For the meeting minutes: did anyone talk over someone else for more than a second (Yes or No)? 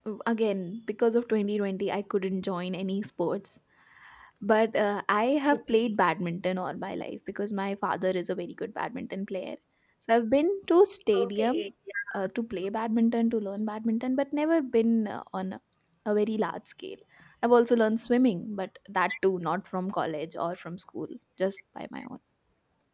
No